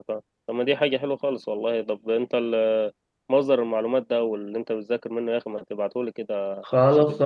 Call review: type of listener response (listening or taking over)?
taking over